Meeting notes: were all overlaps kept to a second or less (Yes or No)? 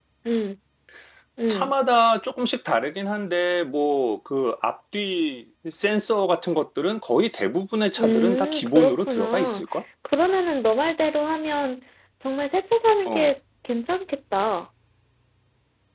No